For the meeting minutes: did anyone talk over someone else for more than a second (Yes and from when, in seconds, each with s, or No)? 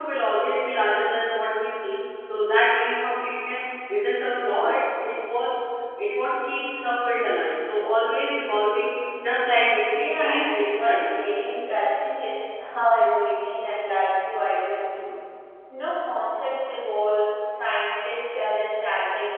Yes, from 9.9 s